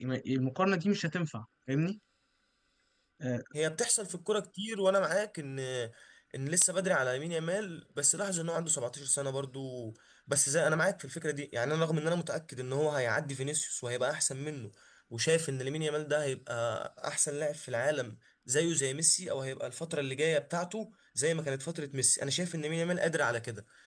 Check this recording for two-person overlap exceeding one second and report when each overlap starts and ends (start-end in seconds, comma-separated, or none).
none